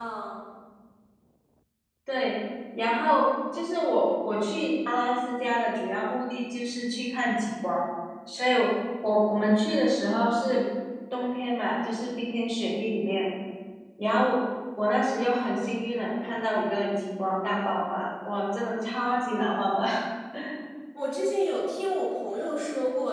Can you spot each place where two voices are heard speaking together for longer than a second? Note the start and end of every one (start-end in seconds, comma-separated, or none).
none